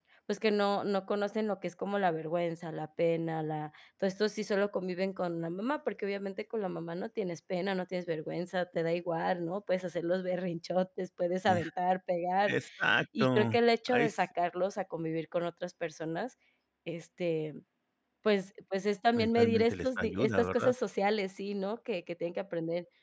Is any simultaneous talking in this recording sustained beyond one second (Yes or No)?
Yes